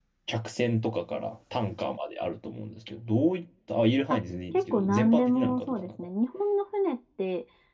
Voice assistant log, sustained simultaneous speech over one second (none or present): present